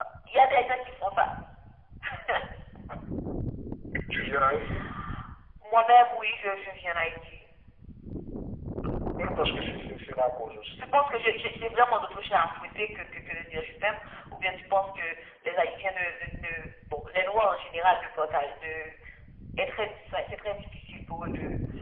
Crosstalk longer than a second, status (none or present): none